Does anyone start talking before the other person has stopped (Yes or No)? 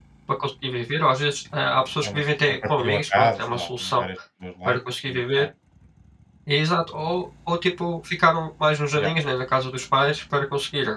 Yes